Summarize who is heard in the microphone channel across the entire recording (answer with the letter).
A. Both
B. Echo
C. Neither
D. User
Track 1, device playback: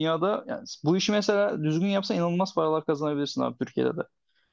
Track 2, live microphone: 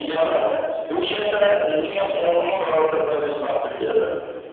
B